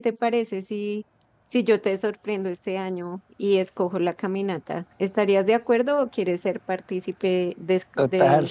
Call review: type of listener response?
taking over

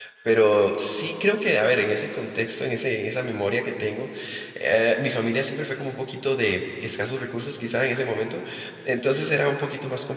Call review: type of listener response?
listening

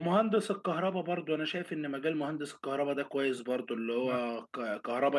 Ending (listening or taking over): listening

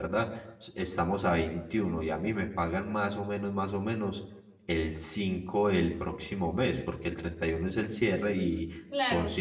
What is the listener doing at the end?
listening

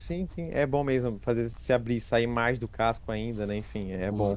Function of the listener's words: taking over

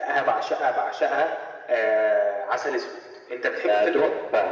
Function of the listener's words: taking over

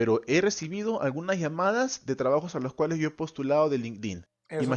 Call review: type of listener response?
taking over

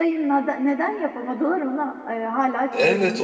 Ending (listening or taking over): taking over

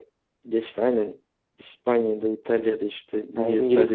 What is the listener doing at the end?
listening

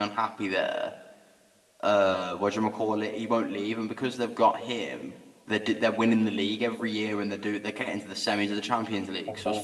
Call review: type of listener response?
listening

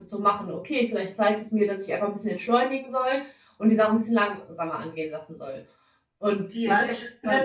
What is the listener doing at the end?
taking over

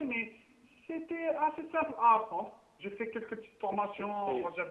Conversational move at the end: taking over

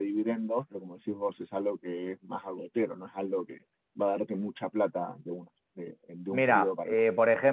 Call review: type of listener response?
taking over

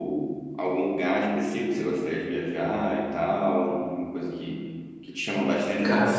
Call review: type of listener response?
listening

